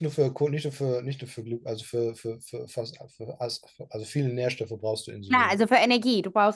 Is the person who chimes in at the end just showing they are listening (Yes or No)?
No